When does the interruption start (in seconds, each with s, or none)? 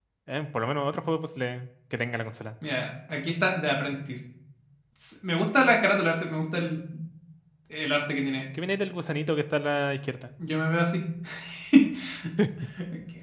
none